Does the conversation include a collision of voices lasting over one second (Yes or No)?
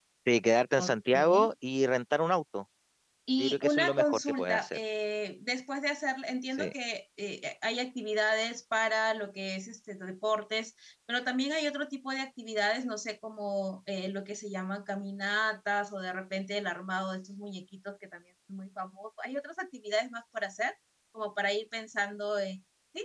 Yes